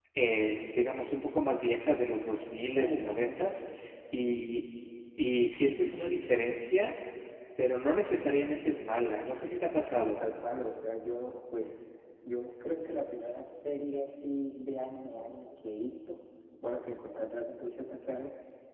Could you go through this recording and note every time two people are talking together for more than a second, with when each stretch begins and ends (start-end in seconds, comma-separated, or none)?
none